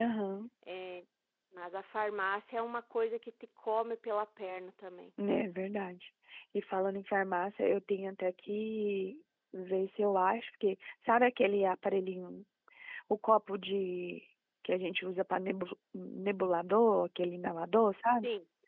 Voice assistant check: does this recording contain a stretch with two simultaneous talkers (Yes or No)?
No